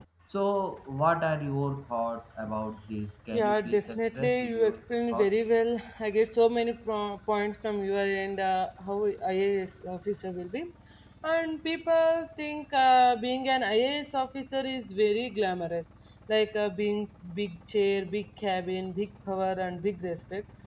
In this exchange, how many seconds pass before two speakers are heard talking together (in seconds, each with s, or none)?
3.3 s